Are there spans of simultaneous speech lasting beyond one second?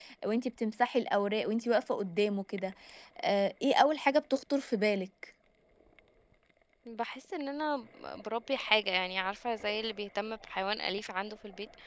No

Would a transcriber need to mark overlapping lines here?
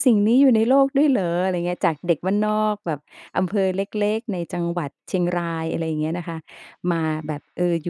No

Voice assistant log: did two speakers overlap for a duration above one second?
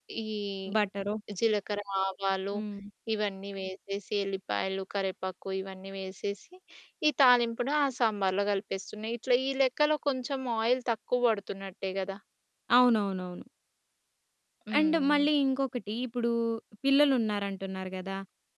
No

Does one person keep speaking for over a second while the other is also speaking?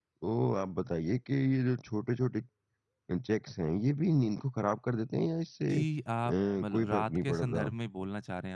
Yes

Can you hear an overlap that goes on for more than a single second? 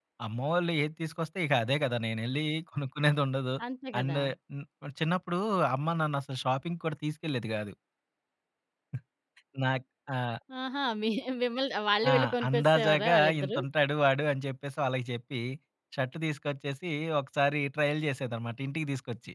Yes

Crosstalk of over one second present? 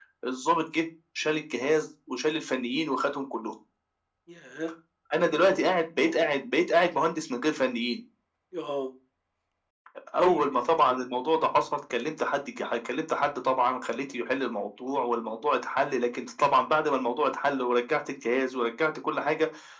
No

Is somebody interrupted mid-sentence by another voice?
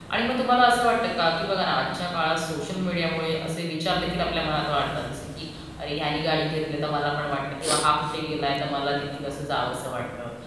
No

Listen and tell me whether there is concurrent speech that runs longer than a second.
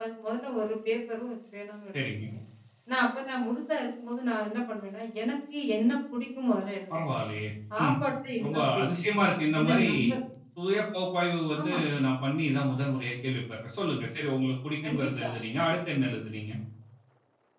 No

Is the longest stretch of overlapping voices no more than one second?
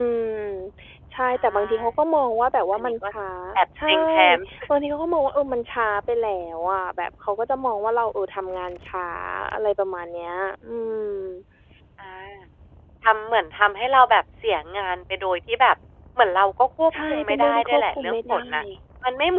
No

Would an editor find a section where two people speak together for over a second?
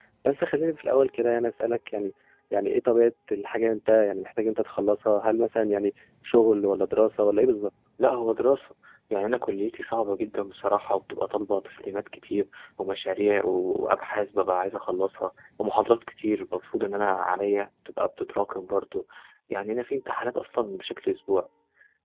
No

